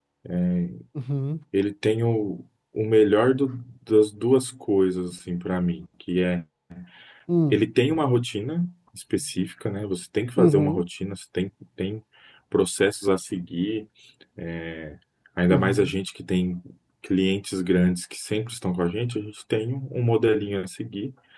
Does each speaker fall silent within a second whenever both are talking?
Yes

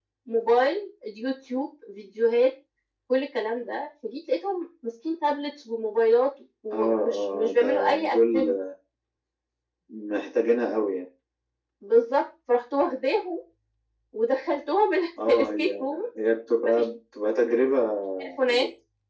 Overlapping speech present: Yes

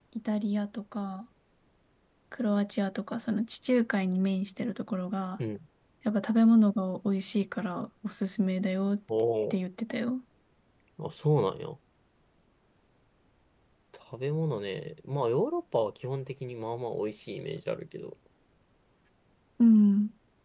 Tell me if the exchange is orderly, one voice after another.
Yes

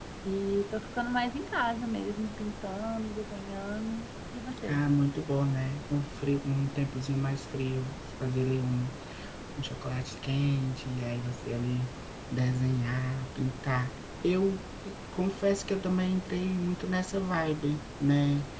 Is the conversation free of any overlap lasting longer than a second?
Yes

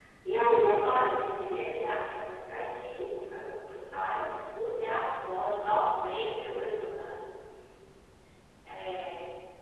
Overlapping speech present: No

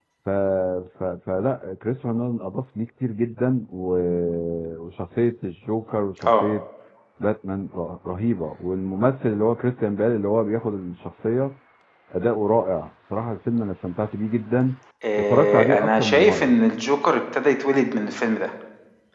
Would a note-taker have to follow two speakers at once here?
Yes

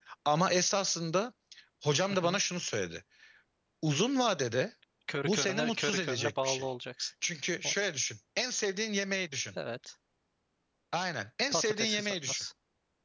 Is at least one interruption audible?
Yes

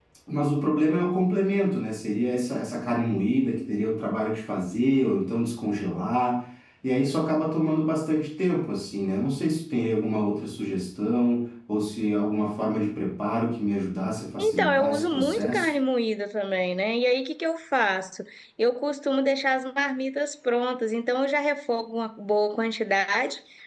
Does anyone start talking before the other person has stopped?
Yes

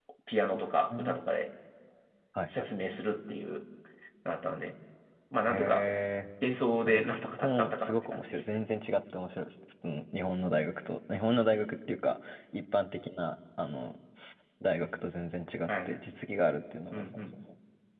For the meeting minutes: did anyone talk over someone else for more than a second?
Yes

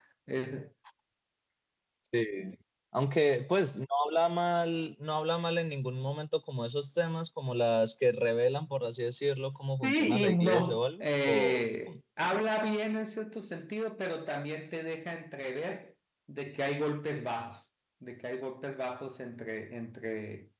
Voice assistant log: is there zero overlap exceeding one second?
No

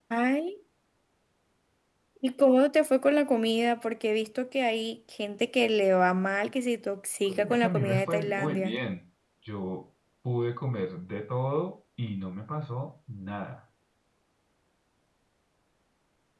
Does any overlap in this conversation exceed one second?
Yes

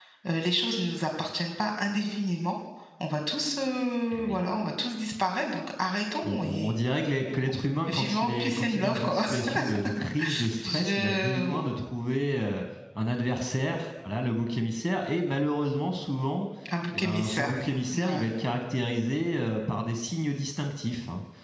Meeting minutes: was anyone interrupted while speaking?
Yes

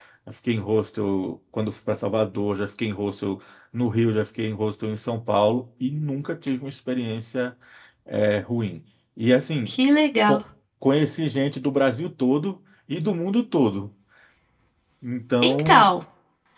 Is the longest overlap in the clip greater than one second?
No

